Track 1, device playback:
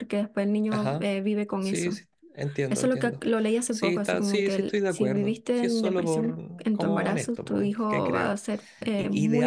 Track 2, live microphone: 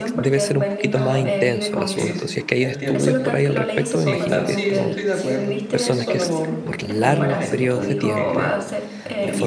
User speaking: Yes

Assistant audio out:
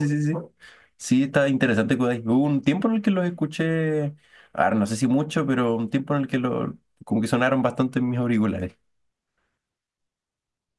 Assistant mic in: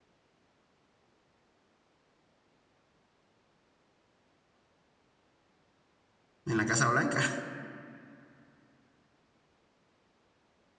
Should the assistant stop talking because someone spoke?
Yes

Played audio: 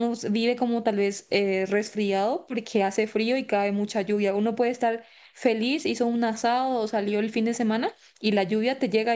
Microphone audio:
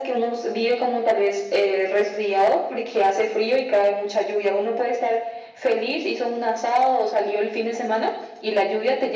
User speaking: No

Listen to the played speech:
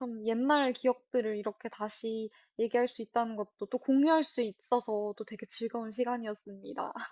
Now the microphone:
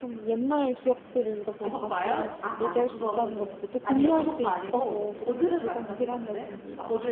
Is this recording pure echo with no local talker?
No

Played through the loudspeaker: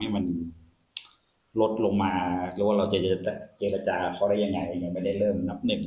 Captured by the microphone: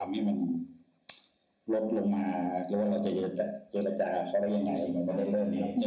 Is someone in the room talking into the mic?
Yes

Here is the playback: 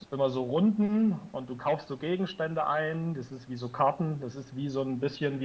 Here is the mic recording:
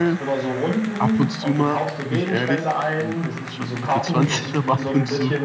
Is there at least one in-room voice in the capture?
Yes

